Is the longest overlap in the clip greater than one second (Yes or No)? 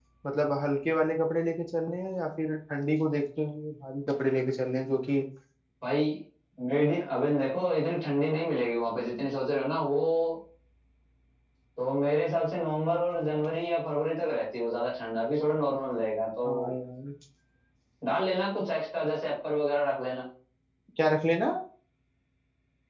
No